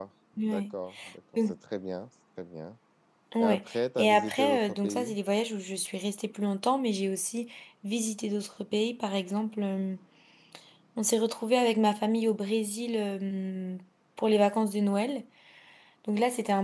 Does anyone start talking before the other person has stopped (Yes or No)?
Yes